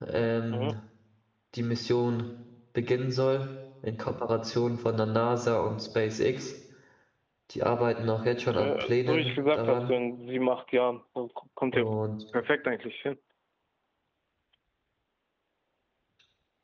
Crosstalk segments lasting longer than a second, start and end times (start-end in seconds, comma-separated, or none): 8.5-9.9